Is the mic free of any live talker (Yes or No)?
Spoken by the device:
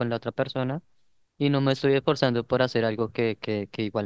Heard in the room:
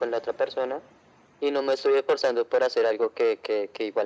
Yes